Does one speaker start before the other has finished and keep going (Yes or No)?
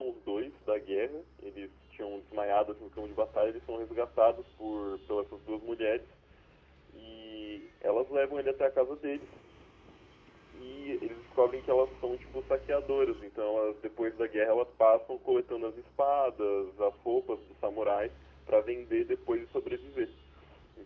No